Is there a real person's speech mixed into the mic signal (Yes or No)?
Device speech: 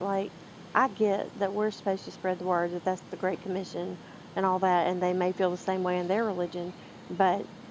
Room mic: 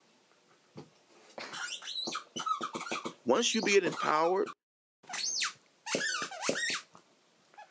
Yes